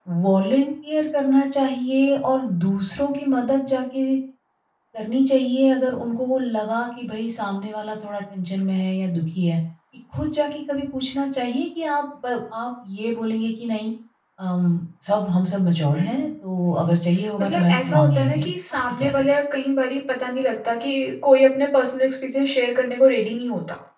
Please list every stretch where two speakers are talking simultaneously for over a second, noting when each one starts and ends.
17.4-19.2

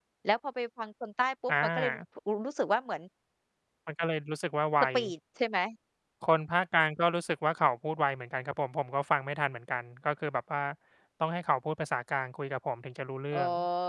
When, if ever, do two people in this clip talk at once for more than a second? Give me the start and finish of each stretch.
none

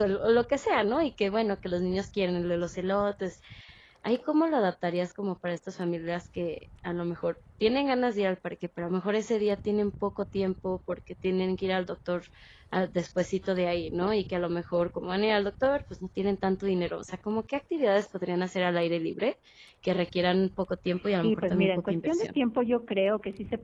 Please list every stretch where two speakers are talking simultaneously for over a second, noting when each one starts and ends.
21.1-22.4

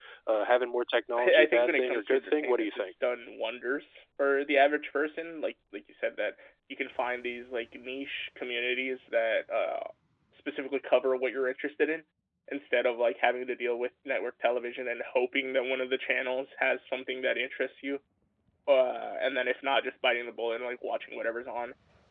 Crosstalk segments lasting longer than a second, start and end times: 1.2-2.7

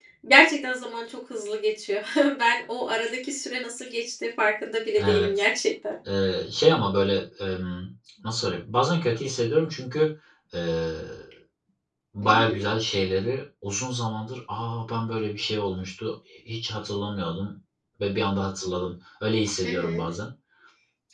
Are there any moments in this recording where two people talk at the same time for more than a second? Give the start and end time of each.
none

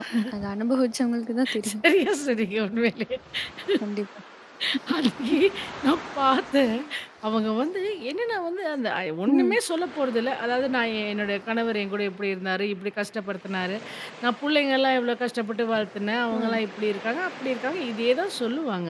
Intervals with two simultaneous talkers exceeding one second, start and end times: none

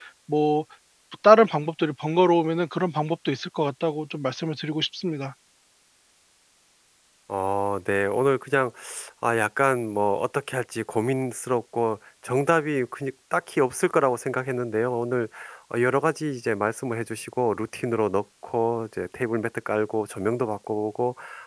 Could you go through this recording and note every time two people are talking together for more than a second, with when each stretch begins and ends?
none

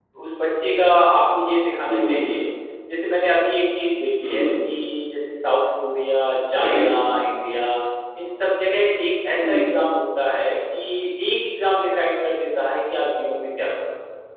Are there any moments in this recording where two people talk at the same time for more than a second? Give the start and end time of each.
none

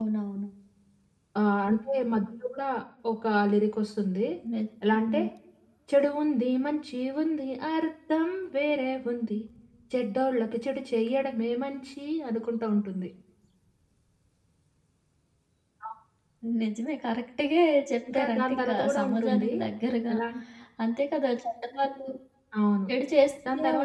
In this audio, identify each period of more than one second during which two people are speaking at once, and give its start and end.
18.1-19.5

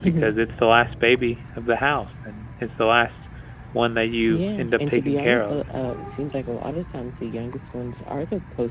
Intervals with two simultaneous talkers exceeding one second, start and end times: 4.3-5.6

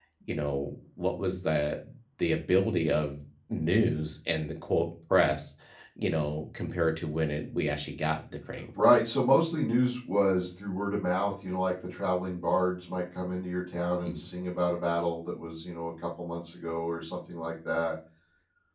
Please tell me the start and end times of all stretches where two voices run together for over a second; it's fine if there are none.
none

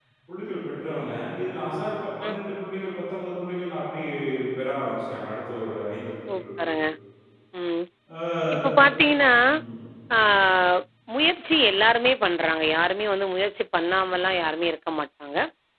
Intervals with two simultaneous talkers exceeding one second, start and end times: none

